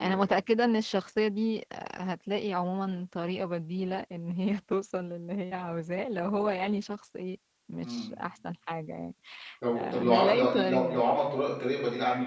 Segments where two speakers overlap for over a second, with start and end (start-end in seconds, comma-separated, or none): 9.8-11.0